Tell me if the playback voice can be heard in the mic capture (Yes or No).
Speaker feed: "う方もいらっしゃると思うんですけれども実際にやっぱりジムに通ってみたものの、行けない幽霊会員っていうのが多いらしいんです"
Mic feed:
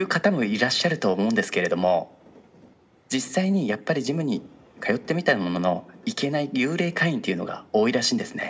Yes